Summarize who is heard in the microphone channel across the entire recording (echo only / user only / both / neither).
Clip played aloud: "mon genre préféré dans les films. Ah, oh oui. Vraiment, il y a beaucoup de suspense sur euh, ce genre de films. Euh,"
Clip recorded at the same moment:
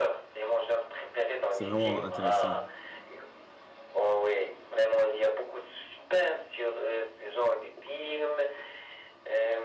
both